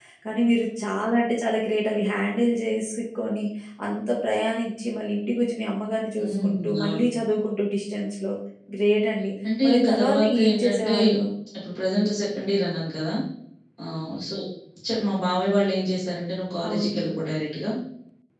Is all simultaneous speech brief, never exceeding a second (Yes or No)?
No